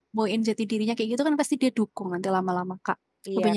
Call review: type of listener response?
taking over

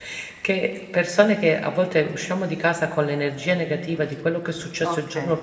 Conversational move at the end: listening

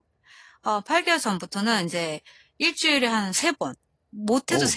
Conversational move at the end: listening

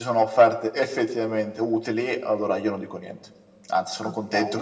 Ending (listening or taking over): listening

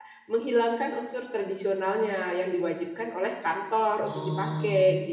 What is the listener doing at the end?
taking over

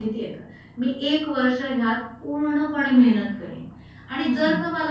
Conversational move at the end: listening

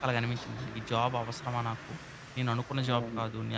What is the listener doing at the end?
listening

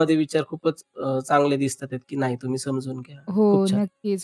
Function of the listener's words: taking over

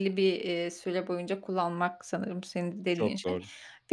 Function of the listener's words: listening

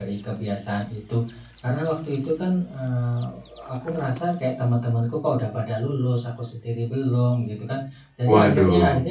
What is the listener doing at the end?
listening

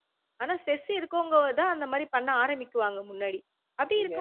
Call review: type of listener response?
listening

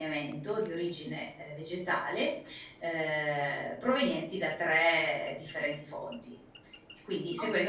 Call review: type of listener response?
taking over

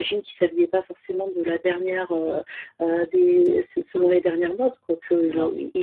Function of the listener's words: listening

